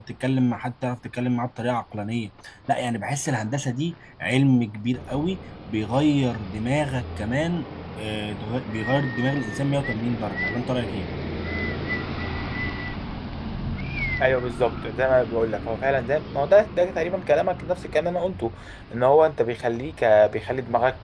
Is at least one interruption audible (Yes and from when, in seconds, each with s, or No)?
No